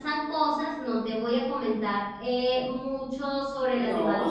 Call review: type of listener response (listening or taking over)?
listening